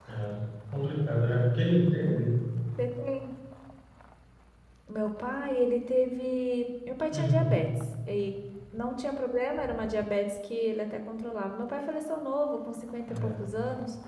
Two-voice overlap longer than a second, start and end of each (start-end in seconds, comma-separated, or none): none